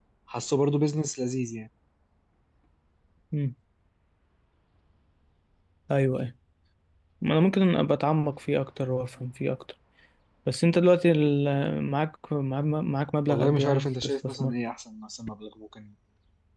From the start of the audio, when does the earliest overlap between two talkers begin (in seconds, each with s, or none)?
13.3 s